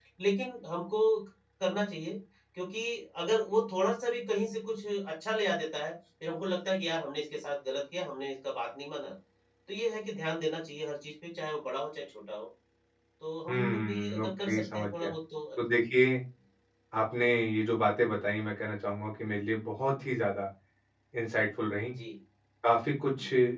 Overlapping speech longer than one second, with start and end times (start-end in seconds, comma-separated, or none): 13.5-15.1